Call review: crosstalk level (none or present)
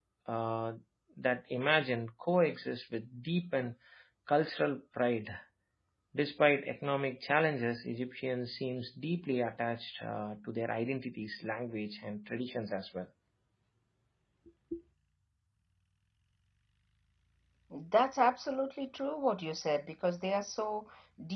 none